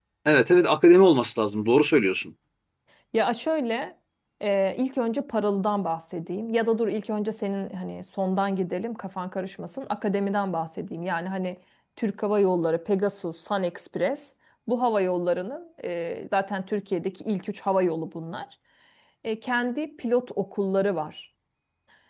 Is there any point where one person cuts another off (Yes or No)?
No